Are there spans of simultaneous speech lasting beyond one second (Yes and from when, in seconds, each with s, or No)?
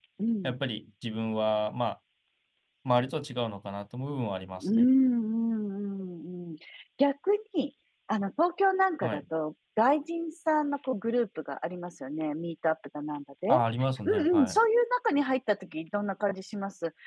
No